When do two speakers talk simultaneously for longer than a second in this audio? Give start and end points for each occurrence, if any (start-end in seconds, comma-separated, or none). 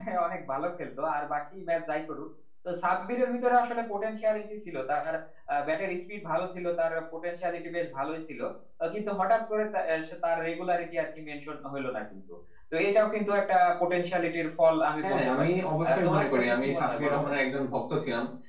15.9-17.3